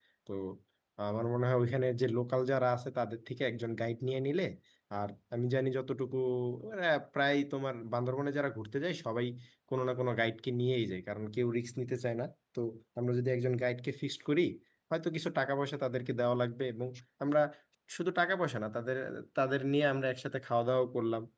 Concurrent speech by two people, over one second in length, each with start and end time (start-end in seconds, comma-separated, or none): none